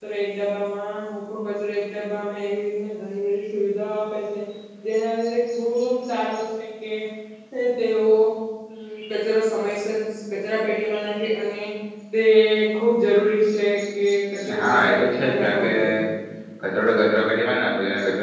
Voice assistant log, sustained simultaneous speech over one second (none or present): present